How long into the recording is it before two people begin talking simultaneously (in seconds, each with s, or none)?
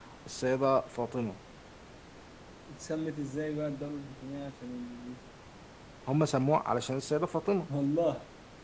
none